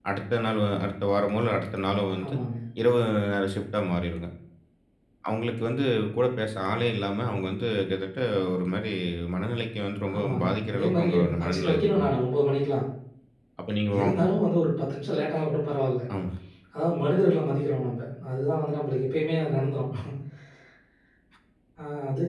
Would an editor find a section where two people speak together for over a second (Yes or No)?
Yes